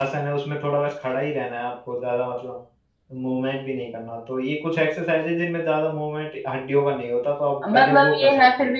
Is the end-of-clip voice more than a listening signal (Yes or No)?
Yes